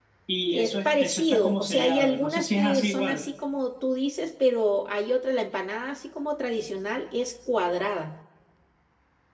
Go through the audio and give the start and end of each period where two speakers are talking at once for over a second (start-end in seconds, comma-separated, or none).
0.5-3.2